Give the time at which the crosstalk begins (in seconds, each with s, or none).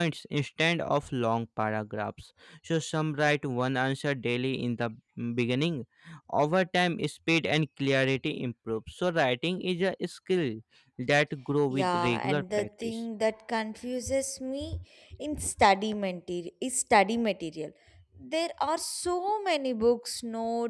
11.7 s